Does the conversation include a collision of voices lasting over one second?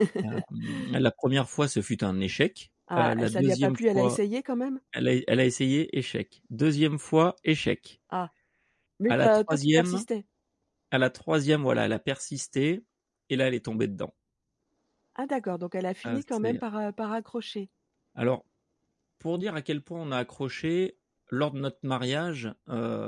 Yes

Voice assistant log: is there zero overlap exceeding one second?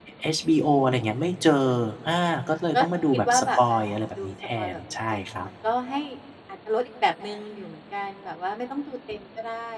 No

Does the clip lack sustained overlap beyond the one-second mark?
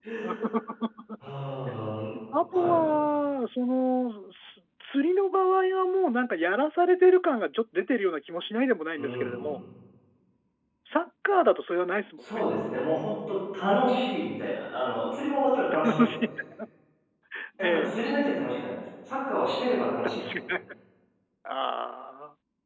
Yes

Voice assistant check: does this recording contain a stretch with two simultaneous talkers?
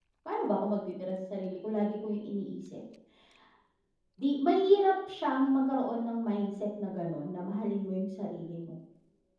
No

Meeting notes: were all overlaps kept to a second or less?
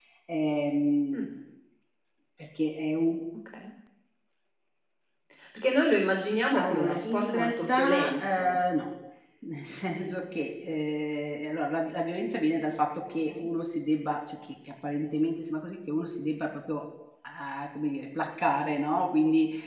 No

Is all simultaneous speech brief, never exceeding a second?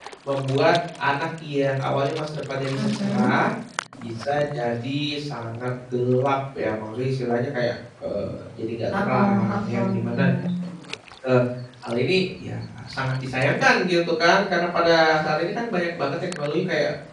No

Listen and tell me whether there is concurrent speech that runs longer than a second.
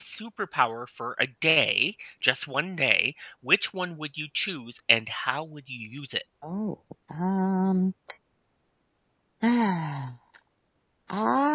No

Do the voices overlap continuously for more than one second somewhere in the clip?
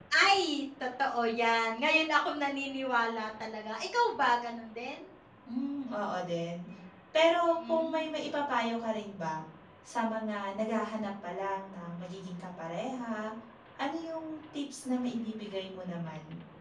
No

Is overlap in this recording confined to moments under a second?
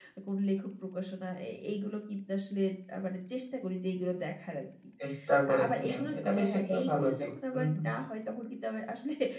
No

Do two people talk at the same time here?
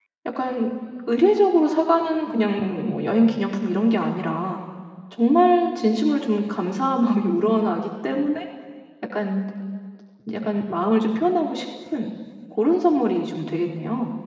No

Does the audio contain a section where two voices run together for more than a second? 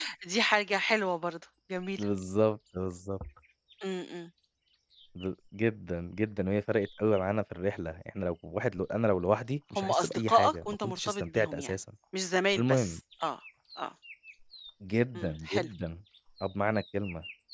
Yes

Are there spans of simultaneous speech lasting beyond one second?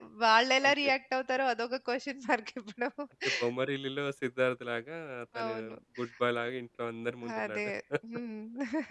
No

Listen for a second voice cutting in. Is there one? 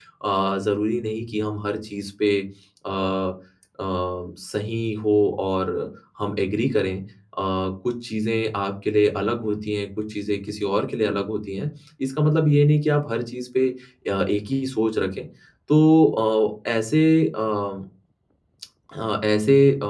No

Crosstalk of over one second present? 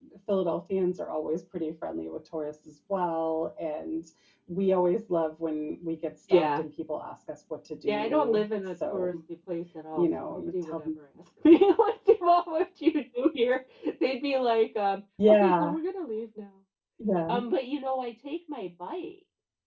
Yes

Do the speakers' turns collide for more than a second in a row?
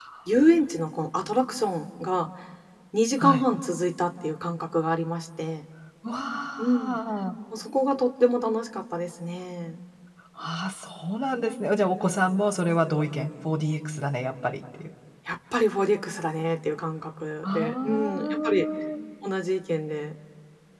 Yes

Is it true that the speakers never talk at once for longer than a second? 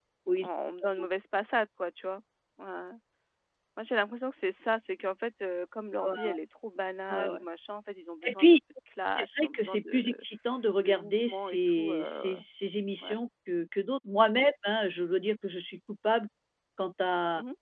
No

